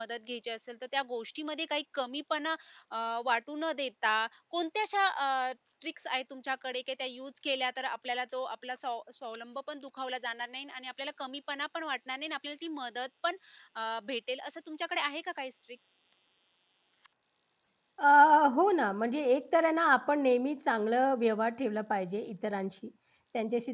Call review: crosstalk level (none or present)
none